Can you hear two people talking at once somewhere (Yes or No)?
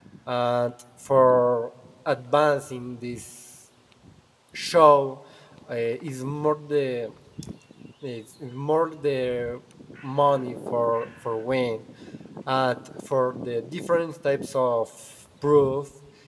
No